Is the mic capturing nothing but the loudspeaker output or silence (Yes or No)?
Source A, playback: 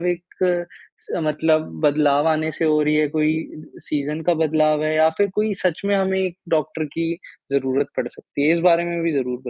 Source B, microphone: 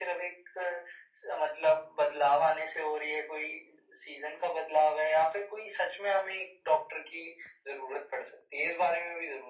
Yes